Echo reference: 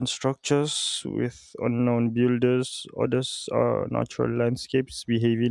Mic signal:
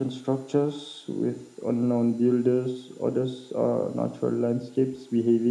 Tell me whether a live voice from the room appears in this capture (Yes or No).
No